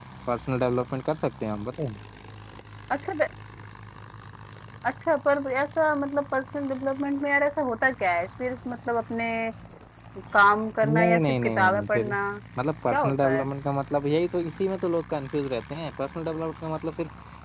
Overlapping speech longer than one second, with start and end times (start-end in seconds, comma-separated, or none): 10.8-12.1